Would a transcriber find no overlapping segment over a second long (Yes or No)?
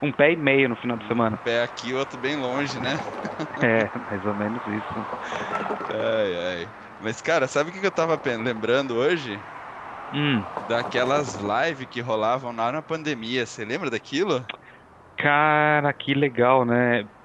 Yes